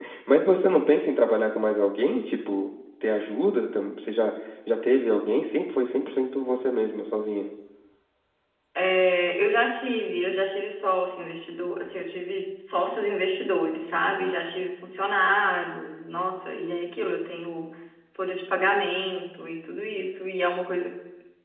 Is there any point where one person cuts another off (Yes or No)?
No